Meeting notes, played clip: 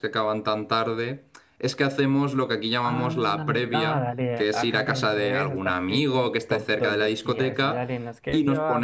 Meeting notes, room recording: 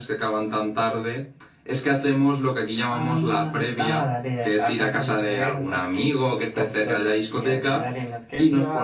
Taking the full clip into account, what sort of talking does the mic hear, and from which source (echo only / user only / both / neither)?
echo only